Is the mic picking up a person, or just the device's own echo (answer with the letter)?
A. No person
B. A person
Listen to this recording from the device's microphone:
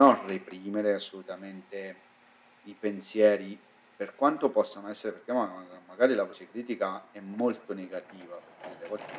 B